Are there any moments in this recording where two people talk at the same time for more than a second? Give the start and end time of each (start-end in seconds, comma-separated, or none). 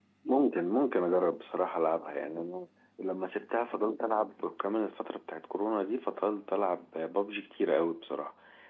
none